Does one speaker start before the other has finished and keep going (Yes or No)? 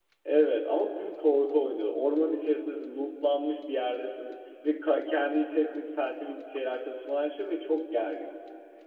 No